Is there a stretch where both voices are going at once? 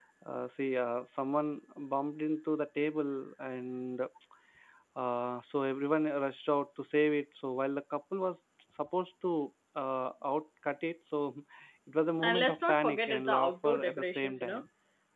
Yes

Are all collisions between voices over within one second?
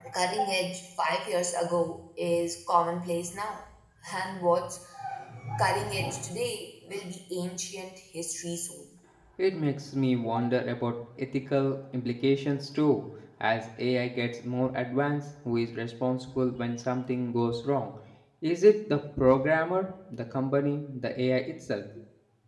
Yes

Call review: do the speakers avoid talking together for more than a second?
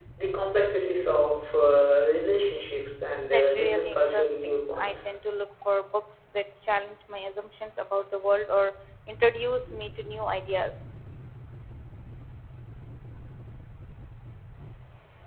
No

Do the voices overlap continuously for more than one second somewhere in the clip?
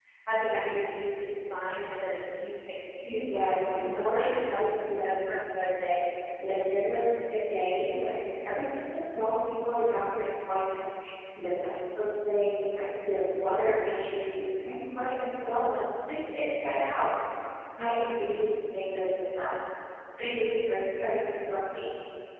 Yes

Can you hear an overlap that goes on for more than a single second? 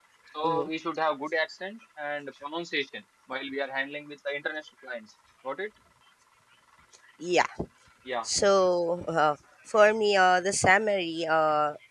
No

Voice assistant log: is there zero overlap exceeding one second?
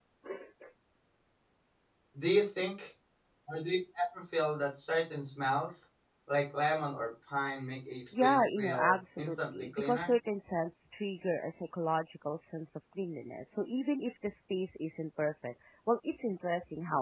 No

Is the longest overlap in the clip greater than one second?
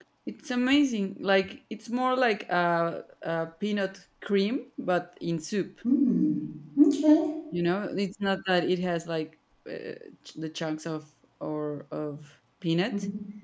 No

